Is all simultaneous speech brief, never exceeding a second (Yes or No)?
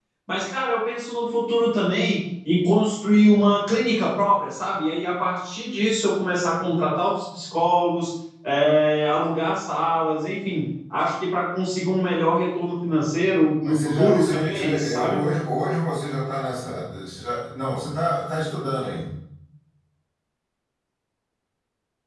No